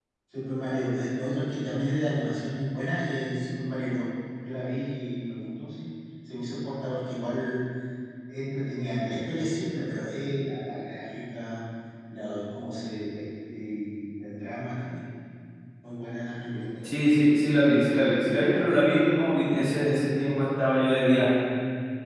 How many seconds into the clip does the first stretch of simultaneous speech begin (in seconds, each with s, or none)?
none